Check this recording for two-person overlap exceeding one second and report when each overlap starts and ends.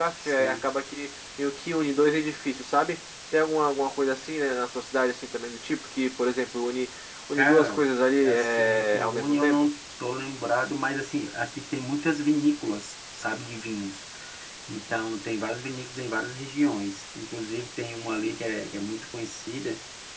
8.2-9.7

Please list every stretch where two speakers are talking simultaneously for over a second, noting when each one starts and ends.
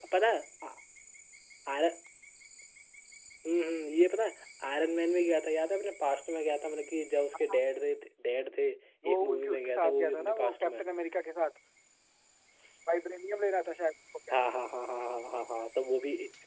9.1-10.8

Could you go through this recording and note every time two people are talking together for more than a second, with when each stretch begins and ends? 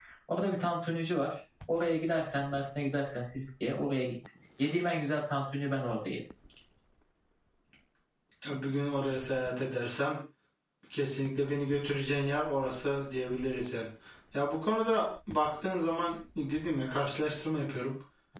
none

